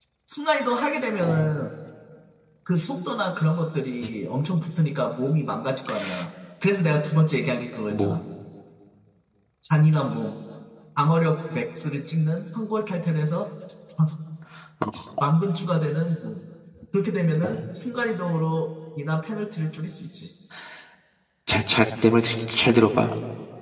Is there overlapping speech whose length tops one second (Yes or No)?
No